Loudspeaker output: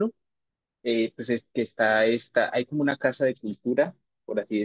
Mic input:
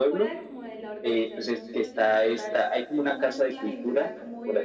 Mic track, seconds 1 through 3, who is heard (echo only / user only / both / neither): both